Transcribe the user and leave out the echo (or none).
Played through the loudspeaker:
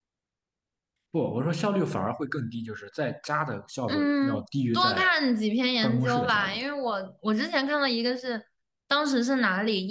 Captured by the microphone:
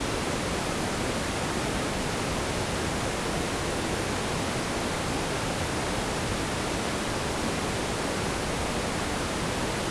none